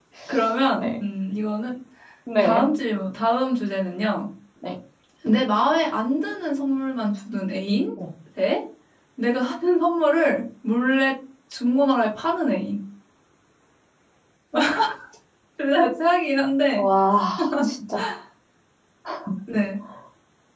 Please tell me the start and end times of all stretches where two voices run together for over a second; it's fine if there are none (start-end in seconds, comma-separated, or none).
none